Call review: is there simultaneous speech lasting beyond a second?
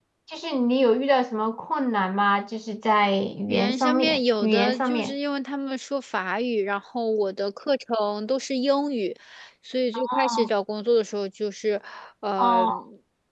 Yes, from 3.5 s

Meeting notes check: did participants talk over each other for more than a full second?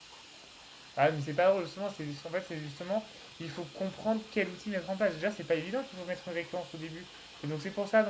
No

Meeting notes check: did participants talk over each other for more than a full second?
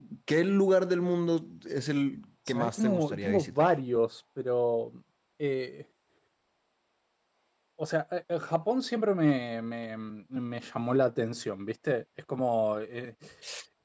Yes, from 2.5 s

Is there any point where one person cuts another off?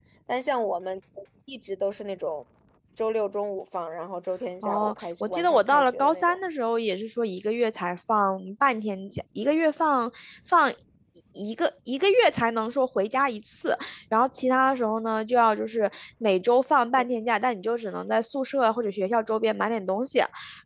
Yes, from 4.6 s

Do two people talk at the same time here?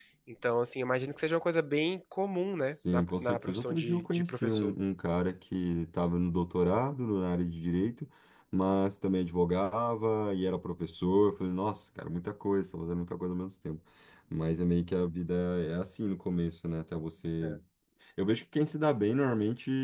Yes, from 2.7 s

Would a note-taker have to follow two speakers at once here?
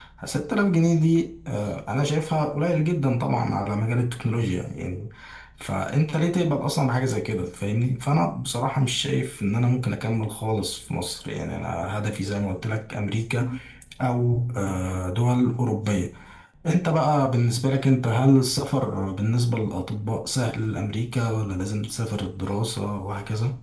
No

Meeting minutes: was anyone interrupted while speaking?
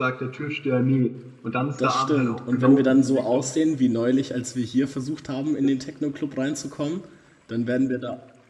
Yes, from 1.8 s

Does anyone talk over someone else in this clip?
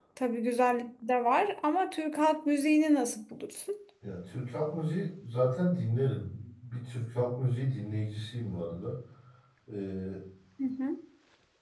No

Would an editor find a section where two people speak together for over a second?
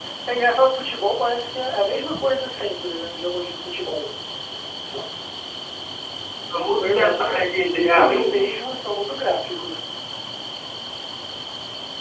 Yes, from 6.8 s

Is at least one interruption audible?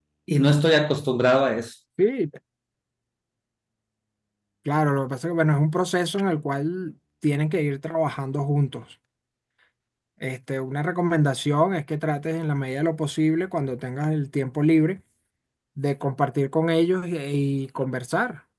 No

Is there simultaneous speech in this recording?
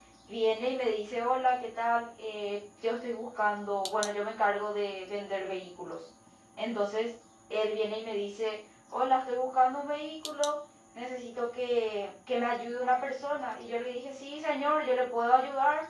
No

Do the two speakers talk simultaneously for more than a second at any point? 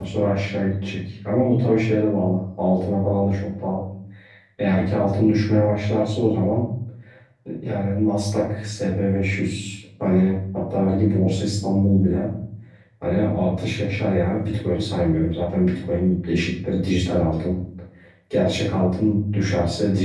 No

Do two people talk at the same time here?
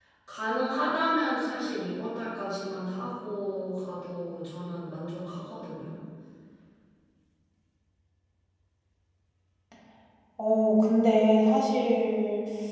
No

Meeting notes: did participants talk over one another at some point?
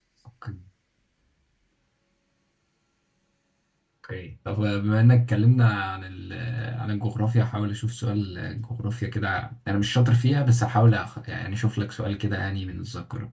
No

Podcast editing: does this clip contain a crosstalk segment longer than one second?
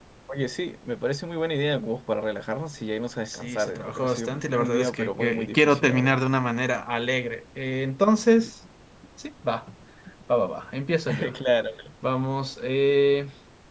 Yes, from 3.3 s

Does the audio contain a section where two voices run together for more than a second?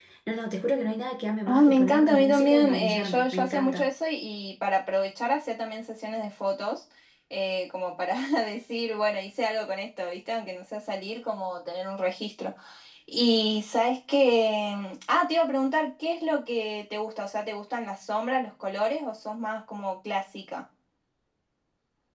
Yes, from 1.5 s

